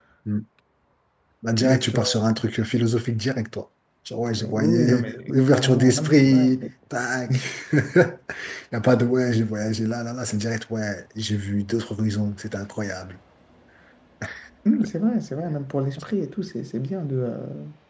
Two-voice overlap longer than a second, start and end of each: 4.3-6.7

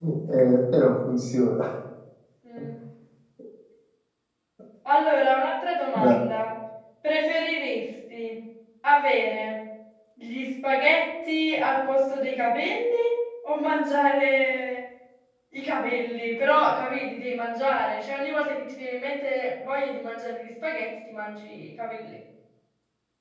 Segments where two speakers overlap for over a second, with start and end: none

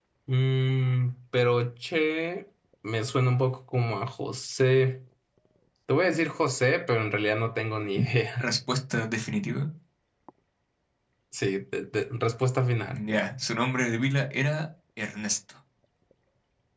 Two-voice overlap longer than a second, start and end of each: none

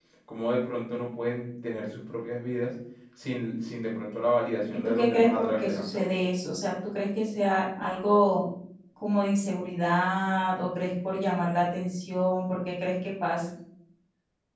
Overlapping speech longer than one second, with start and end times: 4.8-6.0

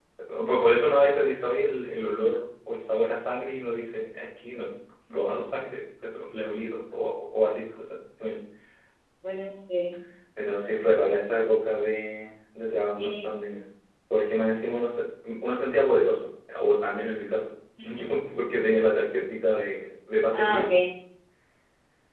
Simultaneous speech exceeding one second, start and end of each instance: none

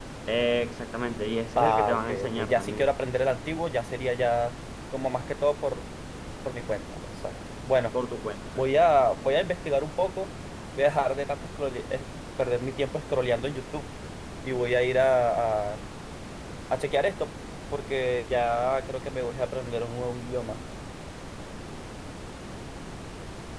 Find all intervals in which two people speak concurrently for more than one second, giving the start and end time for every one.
1.6-2.9

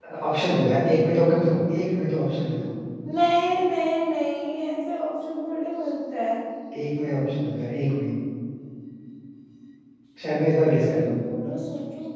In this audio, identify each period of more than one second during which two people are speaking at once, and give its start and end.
none

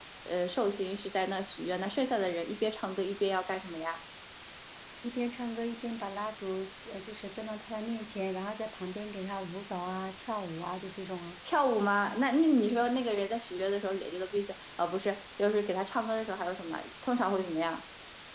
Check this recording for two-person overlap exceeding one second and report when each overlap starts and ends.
none

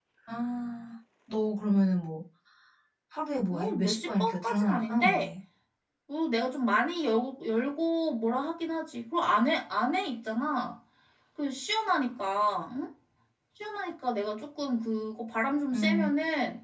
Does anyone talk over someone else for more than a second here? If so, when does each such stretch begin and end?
3.5-5.3

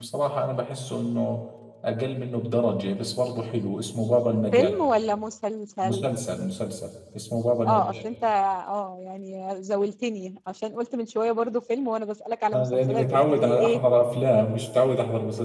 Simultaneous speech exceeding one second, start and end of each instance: 12.5-13.8

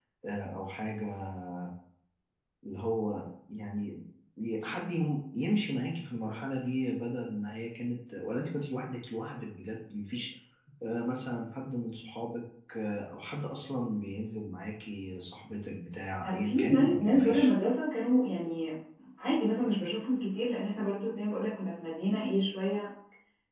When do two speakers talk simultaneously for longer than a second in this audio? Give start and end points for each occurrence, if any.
16.2-17.5

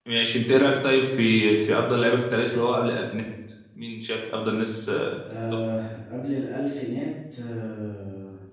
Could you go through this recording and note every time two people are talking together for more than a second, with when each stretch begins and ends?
none

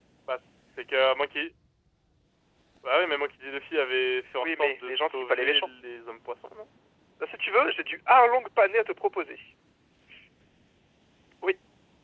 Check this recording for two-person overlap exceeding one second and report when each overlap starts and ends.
4.4-5.7

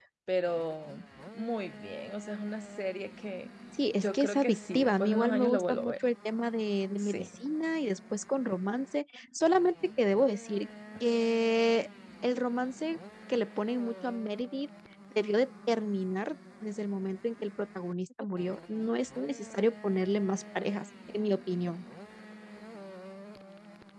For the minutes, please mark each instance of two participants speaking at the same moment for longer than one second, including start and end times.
4.0-5.9

